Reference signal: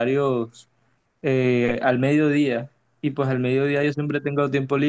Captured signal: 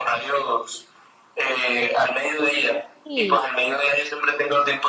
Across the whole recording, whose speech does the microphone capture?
both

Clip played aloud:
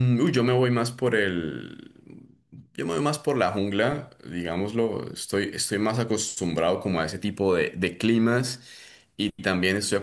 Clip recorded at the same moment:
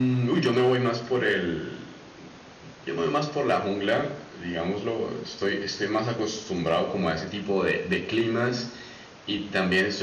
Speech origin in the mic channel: echo only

